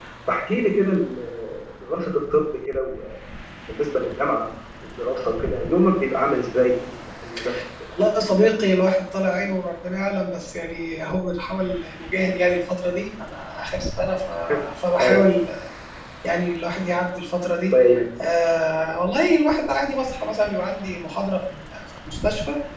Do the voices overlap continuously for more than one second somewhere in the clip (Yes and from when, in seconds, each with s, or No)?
No